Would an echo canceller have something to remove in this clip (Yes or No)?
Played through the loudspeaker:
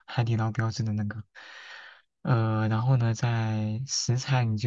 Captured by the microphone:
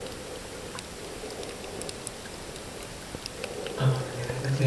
No